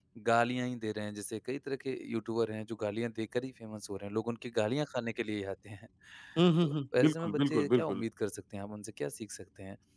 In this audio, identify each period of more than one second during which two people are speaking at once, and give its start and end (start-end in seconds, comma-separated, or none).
6.6-8.0